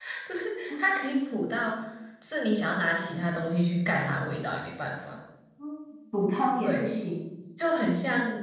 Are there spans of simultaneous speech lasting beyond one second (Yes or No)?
No